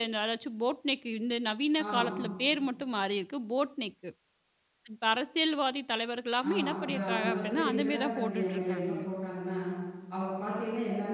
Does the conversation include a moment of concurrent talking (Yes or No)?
Yes